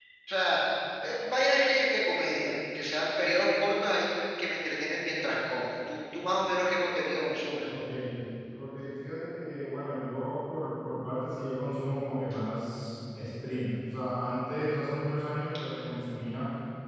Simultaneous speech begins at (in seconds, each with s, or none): none